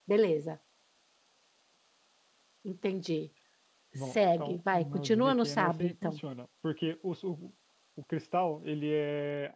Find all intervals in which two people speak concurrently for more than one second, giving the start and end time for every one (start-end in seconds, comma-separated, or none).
4.1-6.2